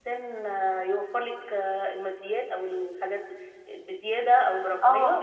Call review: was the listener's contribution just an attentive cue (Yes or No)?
No